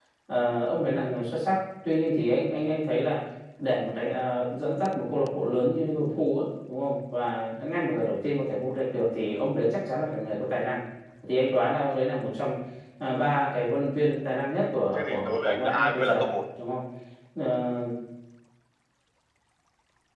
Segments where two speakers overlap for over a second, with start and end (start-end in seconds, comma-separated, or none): 14.6-16.3